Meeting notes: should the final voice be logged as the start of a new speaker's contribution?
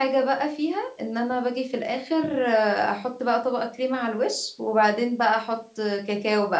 No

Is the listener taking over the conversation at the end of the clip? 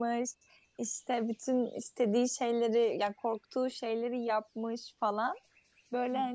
No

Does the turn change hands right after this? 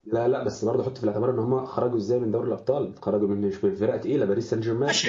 Yes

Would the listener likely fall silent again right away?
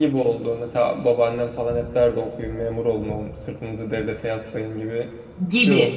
No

